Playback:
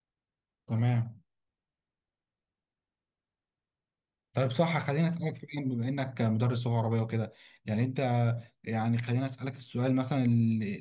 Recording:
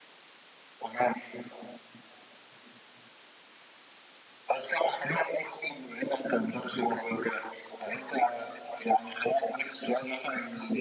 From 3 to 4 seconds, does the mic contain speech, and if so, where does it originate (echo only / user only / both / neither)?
neither